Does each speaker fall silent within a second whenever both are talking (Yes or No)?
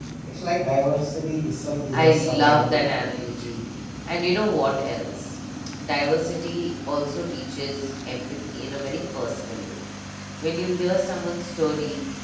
No